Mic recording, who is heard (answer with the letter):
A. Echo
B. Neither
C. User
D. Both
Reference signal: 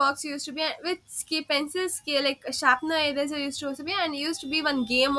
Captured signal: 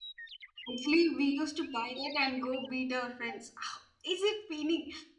C